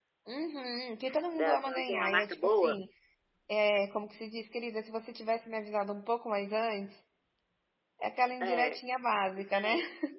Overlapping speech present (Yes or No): Yes